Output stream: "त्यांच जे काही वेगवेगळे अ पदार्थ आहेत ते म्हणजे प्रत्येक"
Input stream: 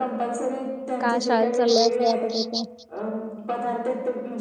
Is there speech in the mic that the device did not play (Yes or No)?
Yes